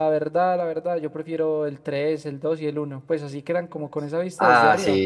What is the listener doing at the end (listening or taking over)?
taking over